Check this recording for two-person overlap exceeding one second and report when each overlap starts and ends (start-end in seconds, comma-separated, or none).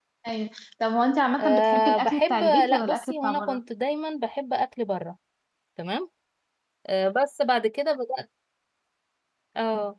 1.4-3.6